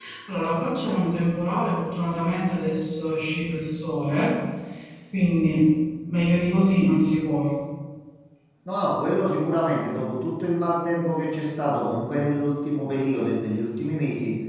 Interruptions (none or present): none